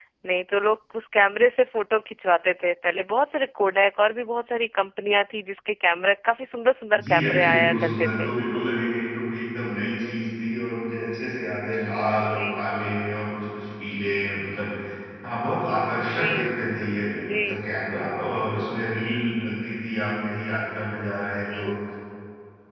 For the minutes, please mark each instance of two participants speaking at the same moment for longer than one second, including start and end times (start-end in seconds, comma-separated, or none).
7.0-8.3